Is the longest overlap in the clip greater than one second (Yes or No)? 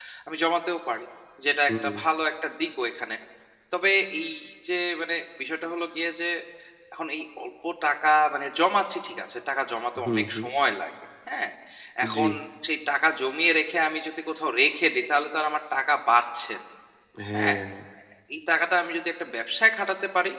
No